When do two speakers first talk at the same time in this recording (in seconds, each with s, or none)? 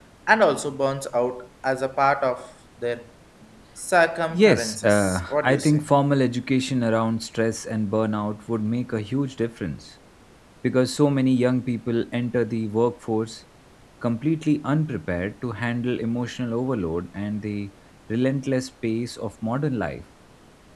4.3 s